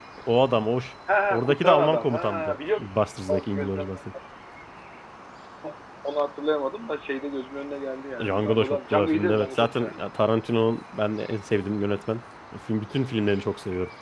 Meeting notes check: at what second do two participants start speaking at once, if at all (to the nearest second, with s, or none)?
1 s